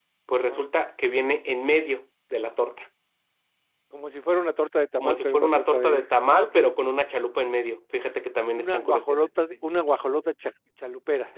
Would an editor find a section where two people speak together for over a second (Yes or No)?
Yes